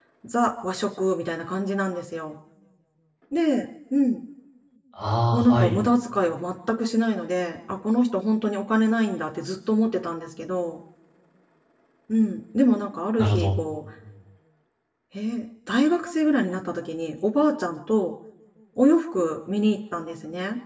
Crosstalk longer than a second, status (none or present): none